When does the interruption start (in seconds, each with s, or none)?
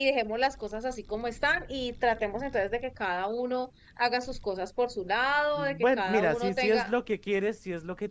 5.5 s